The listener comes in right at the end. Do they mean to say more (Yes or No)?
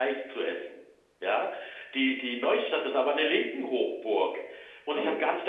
No